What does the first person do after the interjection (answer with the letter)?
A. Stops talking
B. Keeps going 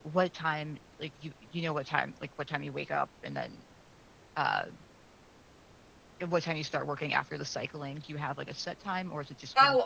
A